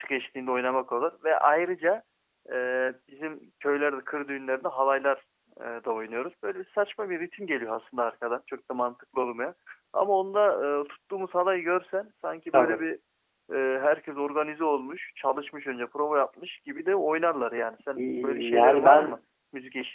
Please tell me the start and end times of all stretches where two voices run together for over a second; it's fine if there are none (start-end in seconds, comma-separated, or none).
18.0-19.2